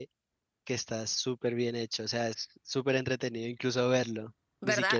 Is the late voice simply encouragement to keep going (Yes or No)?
Yes